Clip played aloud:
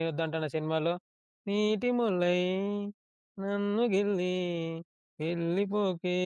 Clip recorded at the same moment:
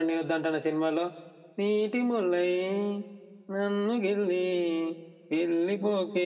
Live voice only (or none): none